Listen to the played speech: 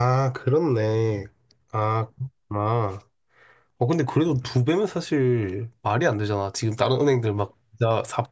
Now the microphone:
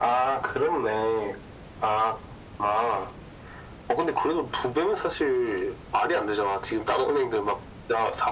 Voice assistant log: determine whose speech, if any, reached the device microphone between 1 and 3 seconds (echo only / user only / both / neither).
echo only